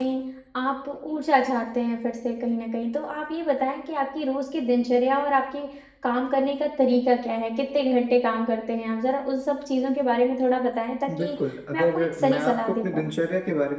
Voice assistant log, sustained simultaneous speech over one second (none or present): present